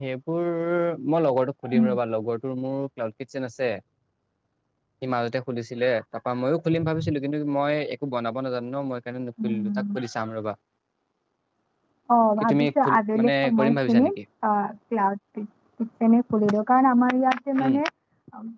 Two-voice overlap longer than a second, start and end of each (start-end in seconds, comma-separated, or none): 12.4-14.2